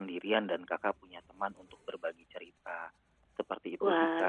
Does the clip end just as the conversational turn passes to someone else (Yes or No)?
Yes